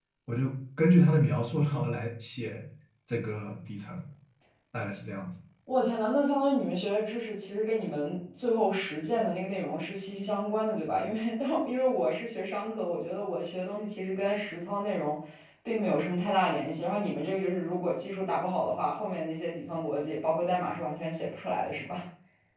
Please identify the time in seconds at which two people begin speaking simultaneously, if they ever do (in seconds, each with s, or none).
none